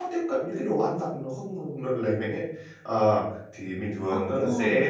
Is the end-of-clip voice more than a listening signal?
No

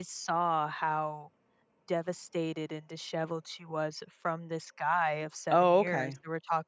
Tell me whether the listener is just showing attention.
Yes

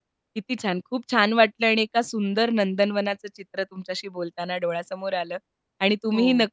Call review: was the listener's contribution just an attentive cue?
Yes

